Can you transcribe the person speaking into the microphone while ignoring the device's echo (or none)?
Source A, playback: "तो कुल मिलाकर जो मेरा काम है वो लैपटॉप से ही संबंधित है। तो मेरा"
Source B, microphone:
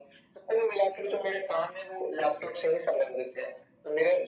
none